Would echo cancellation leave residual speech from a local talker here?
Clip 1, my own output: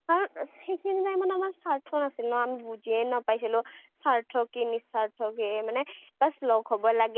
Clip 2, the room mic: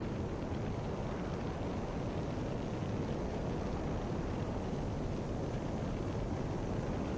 No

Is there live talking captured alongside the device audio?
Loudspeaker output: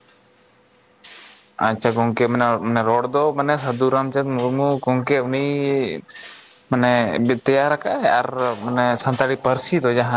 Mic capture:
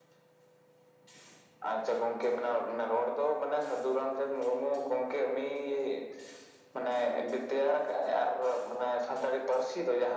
No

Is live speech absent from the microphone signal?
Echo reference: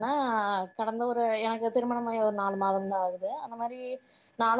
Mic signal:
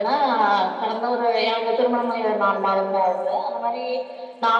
Yes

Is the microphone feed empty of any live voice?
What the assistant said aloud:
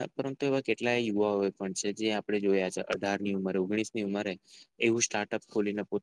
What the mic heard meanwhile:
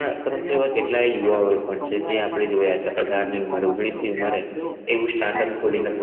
No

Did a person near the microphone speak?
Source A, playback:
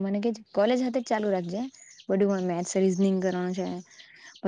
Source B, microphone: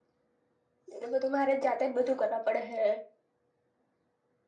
Yes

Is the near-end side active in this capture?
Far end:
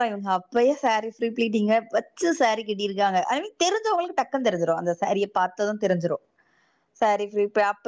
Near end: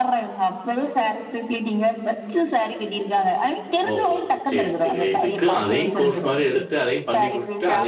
Yes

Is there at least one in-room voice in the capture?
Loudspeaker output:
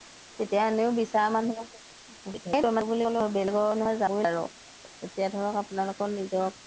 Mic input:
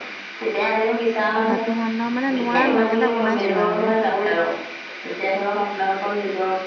Yes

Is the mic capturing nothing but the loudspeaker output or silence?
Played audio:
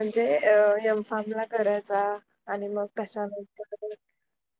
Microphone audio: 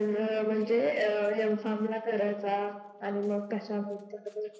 Yes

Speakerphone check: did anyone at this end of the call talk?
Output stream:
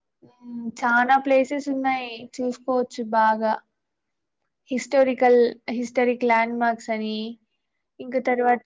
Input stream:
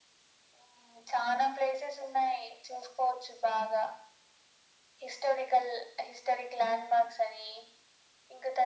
No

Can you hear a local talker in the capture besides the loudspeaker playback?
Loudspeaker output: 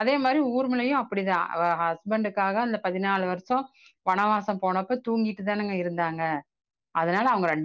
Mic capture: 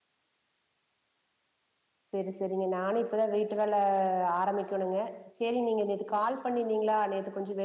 Yes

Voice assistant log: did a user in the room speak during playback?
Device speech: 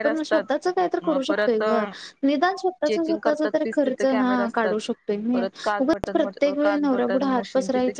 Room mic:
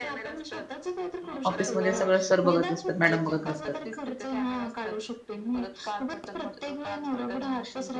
Yes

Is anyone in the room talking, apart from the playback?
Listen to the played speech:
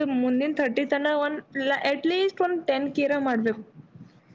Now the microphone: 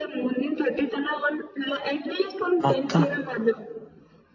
Yes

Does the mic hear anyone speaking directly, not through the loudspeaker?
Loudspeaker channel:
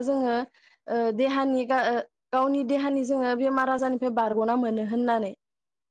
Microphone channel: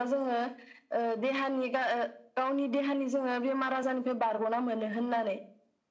No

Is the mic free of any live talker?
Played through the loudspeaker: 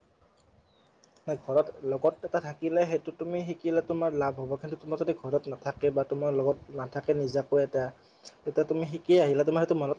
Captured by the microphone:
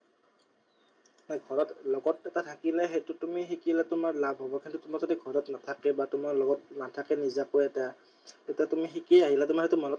Yes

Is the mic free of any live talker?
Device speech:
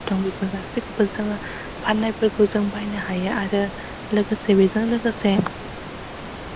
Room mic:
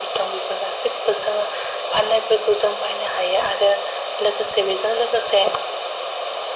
Yes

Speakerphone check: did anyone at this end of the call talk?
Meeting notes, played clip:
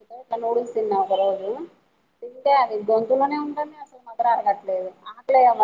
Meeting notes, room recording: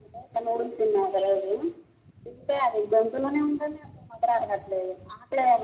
No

